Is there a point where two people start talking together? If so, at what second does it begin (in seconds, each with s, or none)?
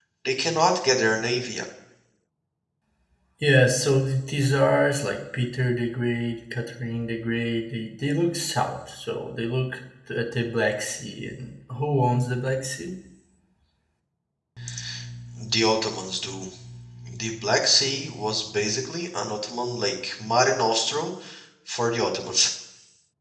none